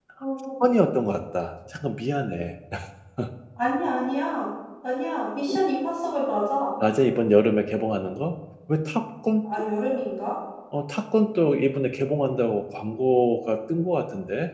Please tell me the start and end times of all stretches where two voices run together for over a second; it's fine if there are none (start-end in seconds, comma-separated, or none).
none